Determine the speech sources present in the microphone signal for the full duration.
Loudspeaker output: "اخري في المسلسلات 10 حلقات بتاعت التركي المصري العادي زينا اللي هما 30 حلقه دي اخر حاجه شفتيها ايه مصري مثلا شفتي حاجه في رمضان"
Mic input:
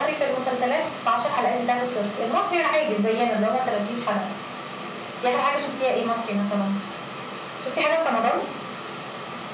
echo only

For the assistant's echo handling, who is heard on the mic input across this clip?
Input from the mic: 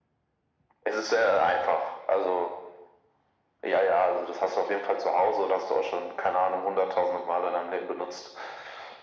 echo only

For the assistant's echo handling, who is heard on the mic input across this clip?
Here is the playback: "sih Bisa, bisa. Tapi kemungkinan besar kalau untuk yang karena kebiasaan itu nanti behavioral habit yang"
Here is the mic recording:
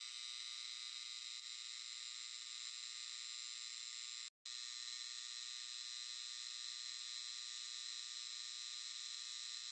neither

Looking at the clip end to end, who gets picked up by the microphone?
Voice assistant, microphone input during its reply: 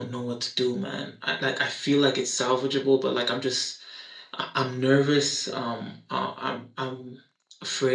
echo only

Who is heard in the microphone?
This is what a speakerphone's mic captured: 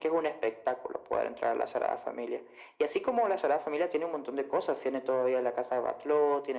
echo only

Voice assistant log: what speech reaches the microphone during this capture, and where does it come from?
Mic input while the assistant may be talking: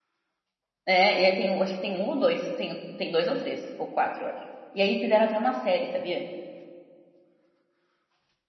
user only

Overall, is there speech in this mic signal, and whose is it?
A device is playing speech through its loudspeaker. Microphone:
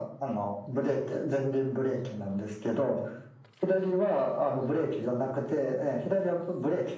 echo only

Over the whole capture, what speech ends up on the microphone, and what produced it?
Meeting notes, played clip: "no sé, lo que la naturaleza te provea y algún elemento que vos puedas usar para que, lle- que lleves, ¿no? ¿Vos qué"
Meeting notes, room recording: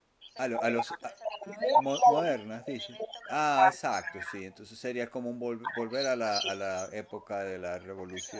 both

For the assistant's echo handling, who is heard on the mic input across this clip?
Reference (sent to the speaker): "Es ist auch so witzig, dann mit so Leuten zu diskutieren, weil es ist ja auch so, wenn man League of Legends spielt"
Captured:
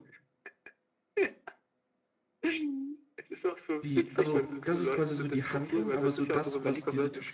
both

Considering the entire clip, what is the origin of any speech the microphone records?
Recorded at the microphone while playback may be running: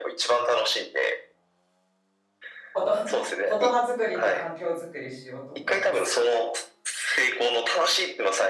both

